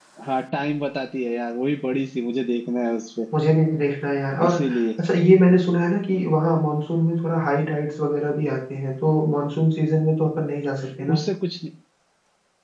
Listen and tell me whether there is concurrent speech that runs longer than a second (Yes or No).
No